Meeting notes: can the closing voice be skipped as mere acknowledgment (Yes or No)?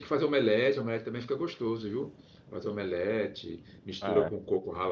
Yes